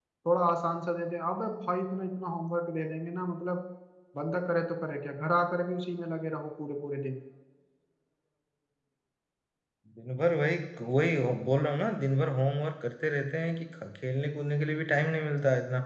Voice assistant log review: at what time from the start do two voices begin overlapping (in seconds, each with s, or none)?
none